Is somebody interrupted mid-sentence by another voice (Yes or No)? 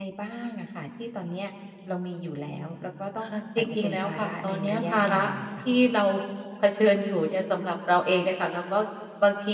Yes